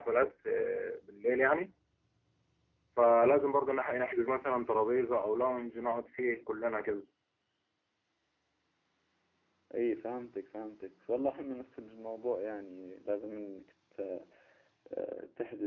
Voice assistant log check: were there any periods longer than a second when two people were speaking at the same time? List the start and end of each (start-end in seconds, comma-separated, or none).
none